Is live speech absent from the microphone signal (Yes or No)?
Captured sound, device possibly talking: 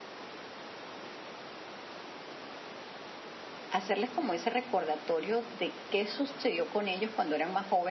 No